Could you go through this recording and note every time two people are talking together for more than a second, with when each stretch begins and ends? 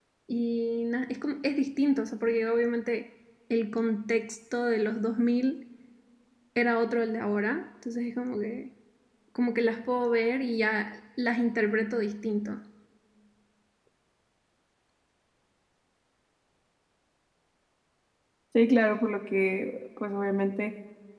none

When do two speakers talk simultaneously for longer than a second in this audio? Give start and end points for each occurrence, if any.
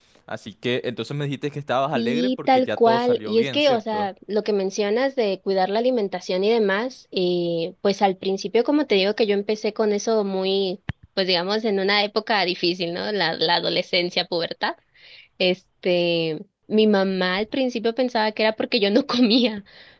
1.9-4.1

